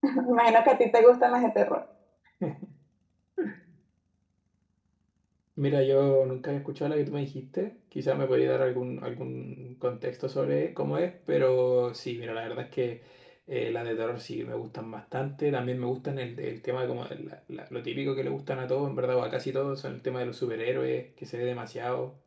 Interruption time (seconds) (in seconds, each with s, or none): none